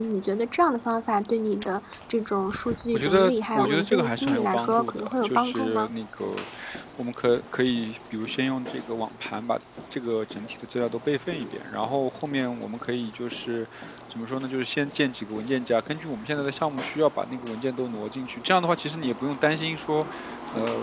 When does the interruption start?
3 s

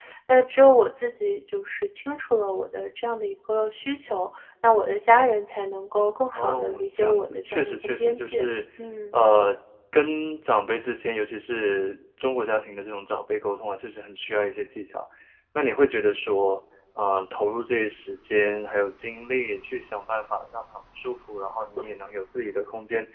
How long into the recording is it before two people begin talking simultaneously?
6 s

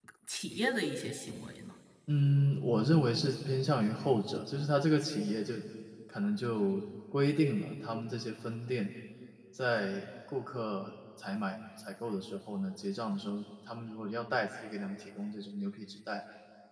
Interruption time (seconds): none

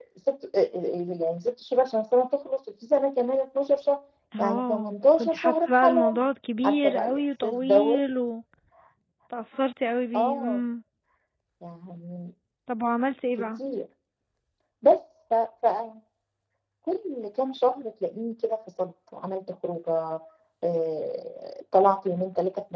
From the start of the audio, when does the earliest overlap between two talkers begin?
4 s

